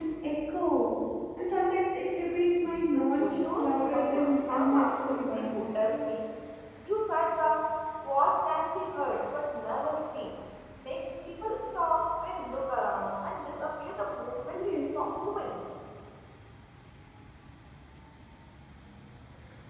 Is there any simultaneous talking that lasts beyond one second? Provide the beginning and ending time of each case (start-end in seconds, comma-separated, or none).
2.6-5.6